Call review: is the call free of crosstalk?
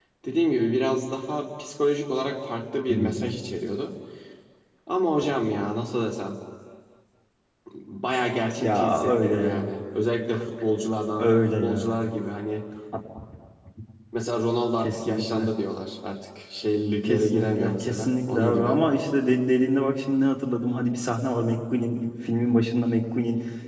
No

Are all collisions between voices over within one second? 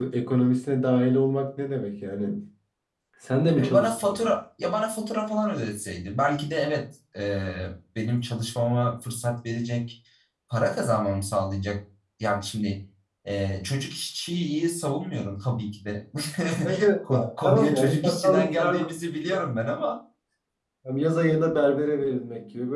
No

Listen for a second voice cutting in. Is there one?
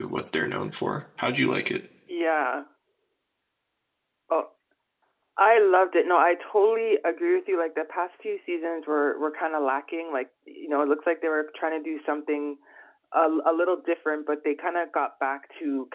No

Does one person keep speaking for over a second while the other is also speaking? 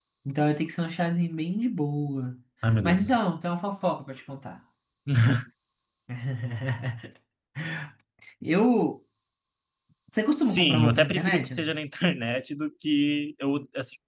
Yes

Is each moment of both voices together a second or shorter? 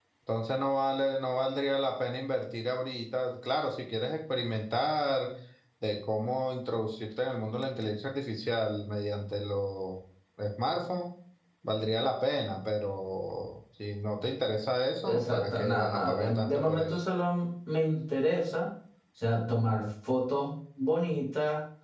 No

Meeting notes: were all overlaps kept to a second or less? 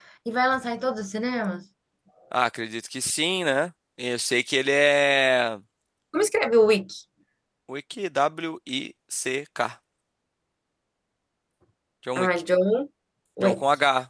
Yes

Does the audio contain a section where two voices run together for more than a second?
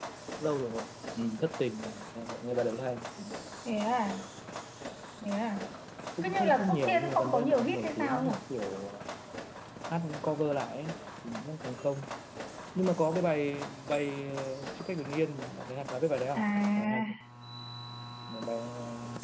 Yes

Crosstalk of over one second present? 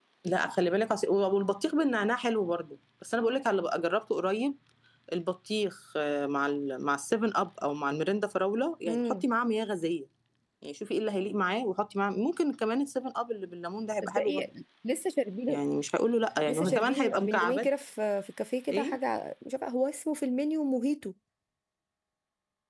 Yes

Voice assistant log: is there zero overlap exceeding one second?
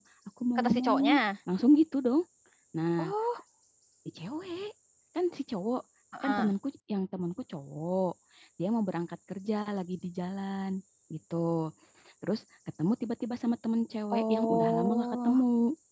No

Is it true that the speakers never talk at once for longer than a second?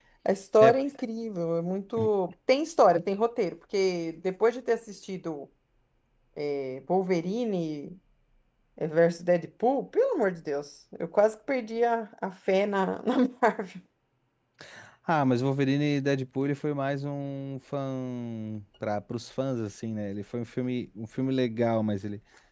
Yes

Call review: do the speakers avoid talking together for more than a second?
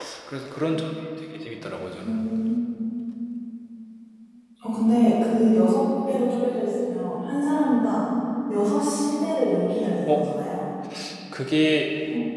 Yes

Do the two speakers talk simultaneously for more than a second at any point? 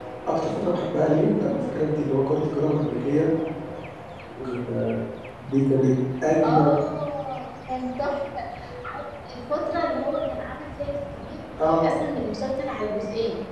No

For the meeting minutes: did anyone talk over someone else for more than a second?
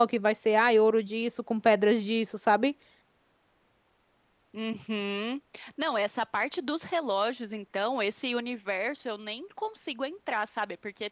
No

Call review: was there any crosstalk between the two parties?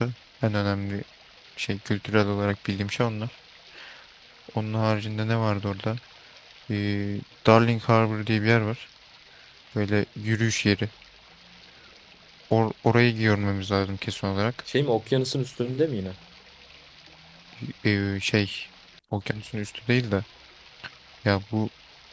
No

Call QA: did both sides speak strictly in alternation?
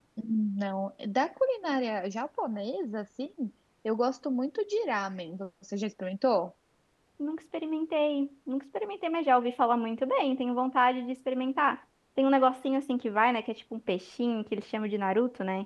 Yes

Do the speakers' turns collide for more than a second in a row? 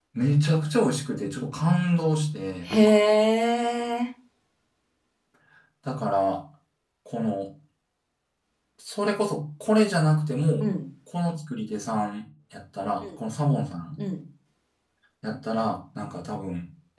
No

